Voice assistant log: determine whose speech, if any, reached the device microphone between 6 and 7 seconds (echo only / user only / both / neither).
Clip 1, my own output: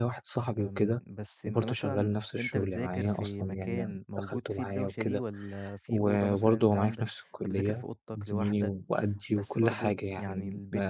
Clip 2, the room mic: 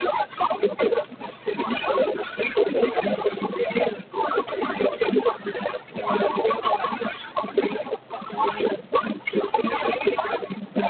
echo only